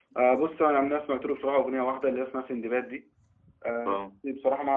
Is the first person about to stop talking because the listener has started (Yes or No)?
No